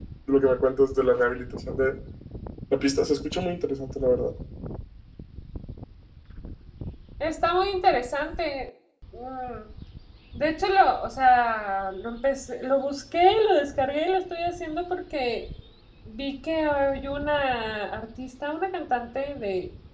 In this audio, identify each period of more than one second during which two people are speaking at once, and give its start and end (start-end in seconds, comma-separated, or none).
none